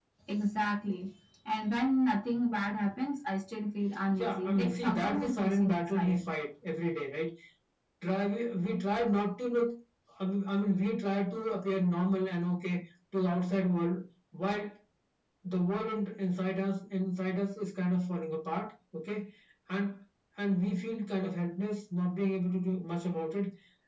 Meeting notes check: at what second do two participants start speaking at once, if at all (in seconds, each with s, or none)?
4.2 s